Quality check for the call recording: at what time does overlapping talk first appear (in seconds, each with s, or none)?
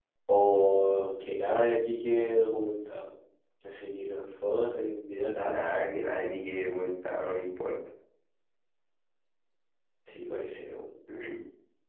none